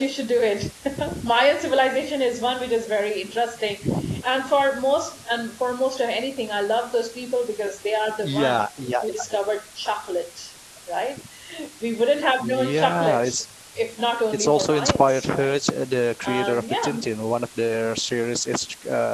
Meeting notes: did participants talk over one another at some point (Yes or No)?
Yes